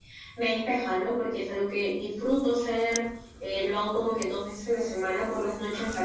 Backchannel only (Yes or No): Yes